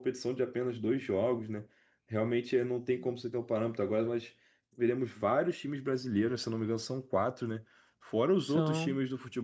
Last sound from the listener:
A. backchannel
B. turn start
A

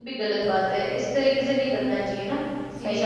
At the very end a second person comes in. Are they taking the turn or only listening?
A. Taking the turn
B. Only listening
A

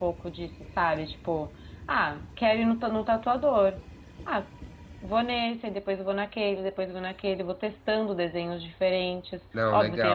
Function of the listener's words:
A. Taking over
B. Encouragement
B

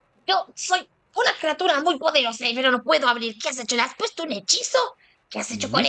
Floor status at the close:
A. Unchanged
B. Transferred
B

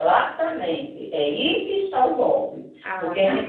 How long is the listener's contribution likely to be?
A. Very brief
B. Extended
A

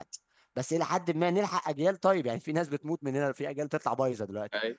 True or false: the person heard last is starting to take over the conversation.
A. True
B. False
A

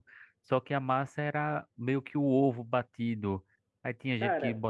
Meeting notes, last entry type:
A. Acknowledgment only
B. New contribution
A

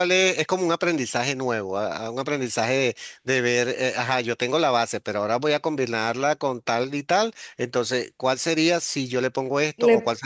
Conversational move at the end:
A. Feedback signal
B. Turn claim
A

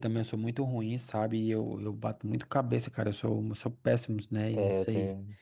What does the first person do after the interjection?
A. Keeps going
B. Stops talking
B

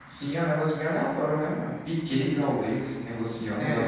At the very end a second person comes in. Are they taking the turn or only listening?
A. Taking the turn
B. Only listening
A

